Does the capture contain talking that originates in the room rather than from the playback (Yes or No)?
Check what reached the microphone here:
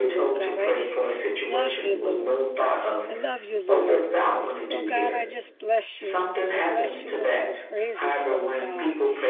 Yes